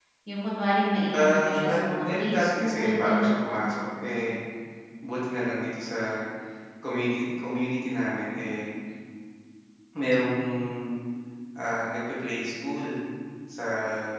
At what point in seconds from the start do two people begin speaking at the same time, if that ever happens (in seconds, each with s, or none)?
1.1 s